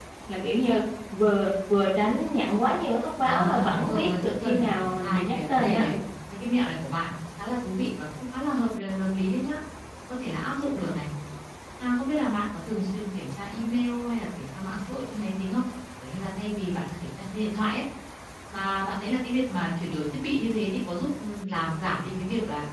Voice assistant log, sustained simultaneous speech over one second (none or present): present